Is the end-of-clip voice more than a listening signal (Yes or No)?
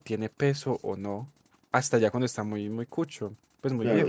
Yes